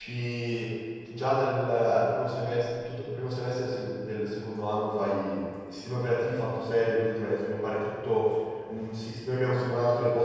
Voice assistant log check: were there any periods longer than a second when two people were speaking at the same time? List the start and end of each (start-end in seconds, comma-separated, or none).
none